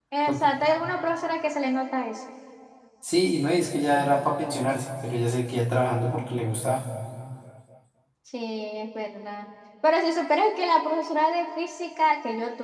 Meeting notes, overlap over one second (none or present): none